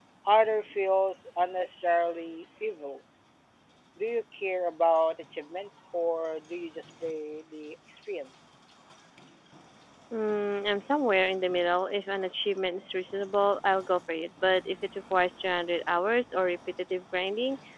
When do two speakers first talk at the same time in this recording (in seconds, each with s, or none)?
none